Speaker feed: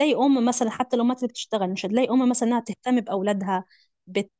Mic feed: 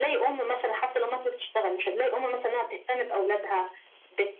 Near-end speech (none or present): none